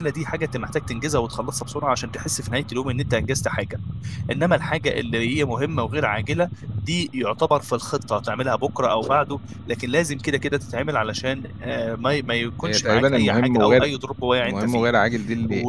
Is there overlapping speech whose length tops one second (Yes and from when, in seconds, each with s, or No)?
Yes, from 12.6 s